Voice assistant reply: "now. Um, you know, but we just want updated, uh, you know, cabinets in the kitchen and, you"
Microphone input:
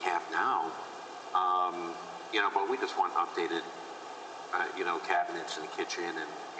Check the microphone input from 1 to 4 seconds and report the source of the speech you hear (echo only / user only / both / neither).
echo only